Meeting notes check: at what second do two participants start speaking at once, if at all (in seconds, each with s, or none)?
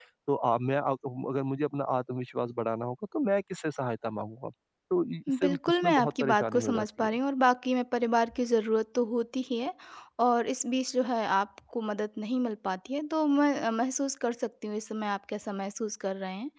5.4 s